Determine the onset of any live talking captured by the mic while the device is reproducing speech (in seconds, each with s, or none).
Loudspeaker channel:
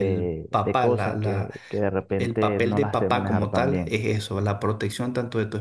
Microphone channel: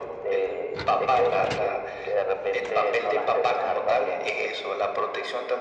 none